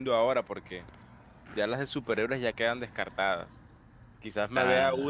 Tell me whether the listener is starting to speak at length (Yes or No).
No